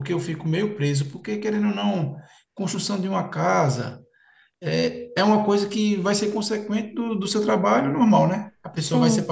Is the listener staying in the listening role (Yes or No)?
Yes